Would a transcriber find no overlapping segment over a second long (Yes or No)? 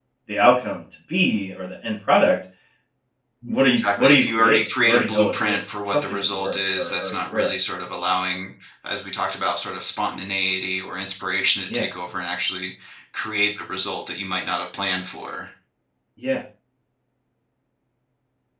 No